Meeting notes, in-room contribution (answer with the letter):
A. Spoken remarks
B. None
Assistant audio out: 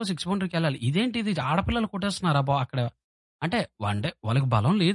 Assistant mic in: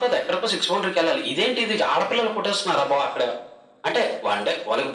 B